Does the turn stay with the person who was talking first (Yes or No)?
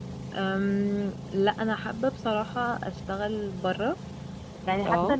Yes